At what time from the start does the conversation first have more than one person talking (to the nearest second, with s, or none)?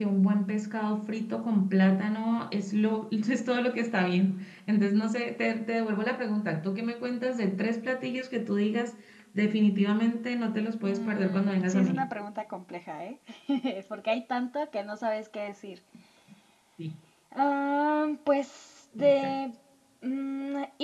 11 s